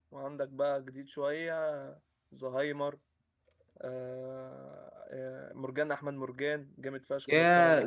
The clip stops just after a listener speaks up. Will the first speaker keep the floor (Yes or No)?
No